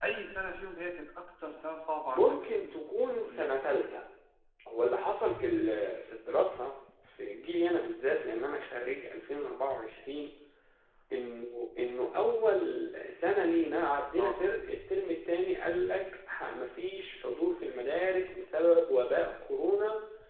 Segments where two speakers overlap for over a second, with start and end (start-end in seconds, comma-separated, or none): 2.1-3.6